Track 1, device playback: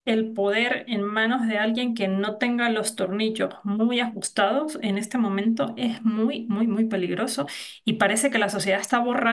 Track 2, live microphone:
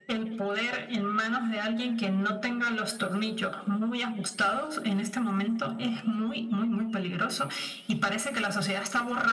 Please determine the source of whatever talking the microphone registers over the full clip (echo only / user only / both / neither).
echo only